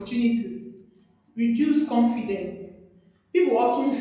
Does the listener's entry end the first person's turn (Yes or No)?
No